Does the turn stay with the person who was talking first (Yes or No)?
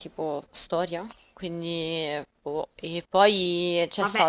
No